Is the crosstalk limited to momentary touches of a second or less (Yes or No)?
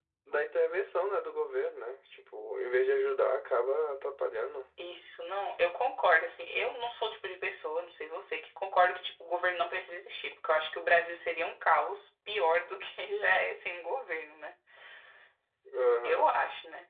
Yes